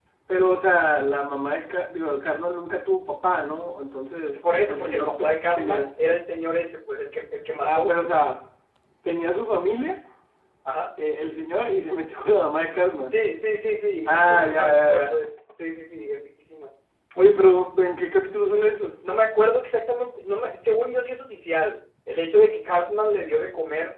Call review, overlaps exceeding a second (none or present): present